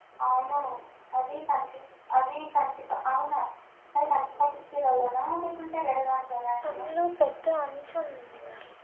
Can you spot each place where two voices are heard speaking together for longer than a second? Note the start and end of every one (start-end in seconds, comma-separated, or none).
none